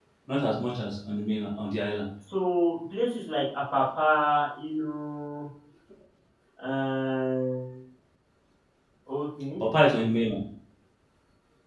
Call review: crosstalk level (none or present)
none